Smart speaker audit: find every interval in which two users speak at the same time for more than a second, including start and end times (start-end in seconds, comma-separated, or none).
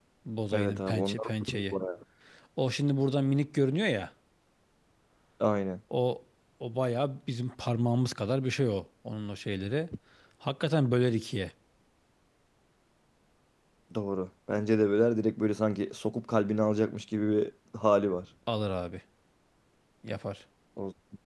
0.5-1.7